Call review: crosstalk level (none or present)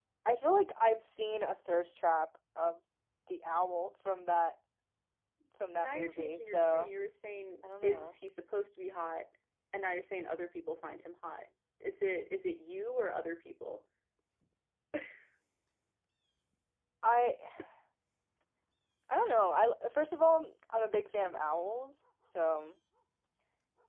present